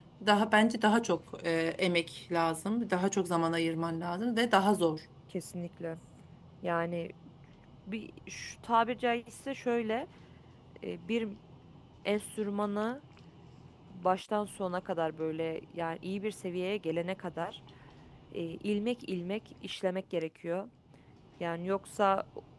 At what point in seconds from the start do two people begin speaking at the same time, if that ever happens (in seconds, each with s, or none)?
none